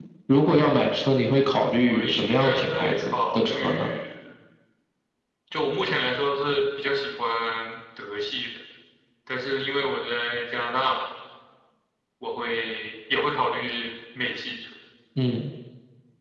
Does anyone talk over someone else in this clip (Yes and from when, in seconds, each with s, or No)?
Yes, from 1.8 s